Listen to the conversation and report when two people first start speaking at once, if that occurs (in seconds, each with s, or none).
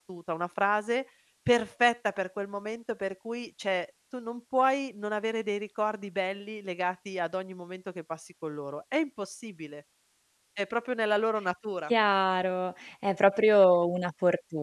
none